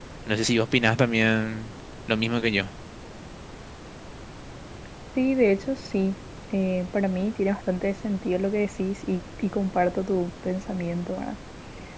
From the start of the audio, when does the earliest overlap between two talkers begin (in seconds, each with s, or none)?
none